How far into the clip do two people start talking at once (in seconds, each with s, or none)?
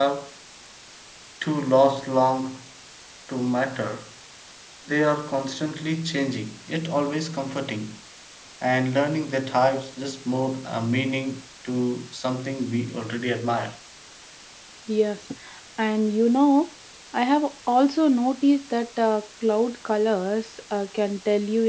none